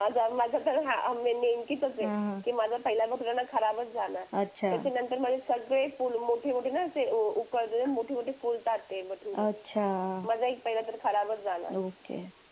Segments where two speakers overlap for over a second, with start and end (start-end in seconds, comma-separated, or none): none